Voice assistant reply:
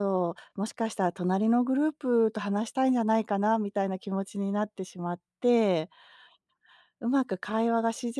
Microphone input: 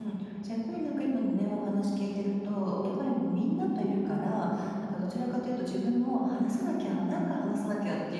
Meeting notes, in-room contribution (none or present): present